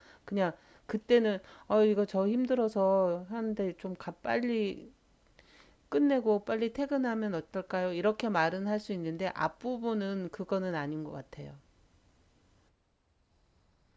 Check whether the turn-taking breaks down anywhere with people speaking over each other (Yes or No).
No